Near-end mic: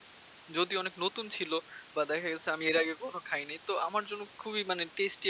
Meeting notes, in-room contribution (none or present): present